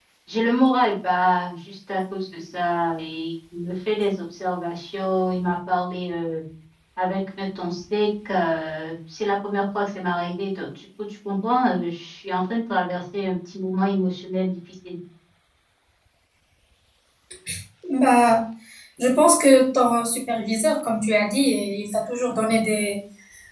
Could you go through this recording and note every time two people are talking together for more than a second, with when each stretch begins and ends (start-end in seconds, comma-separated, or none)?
none